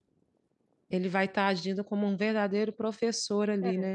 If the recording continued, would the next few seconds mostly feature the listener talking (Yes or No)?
Yes